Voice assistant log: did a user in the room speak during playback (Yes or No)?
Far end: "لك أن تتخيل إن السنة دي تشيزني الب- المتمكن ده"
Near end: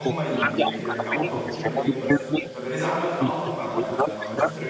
Yes